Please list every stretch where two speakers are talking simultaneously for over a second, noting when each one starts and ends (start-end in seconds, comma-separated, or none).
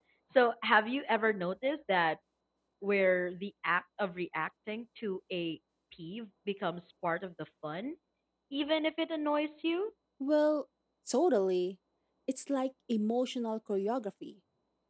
none